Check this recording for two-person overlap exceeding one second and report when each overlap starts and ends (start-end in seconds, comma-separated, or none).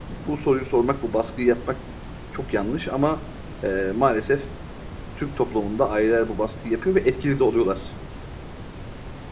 none